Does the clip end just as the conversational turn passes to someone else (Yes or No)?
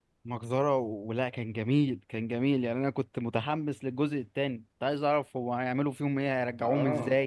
Yes